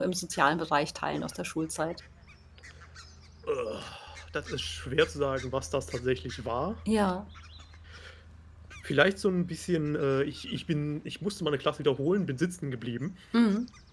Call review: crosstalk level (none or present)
none